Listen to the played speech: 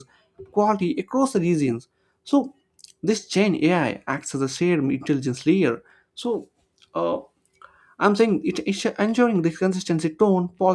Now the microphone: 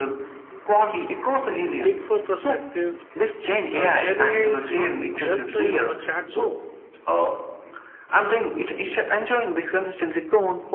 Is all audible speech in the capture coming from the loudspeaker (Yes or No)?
No